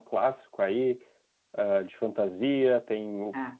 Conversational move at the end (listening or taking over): listening